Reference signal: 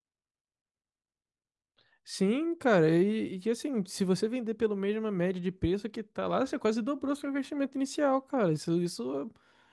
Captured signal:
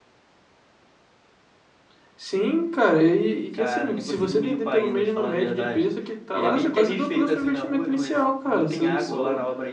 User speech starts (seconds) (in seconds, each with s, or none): 3.5 s